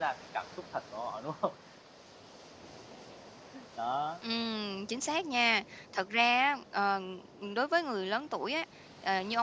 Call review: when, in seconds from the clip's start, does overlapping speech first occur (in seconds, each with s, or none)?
none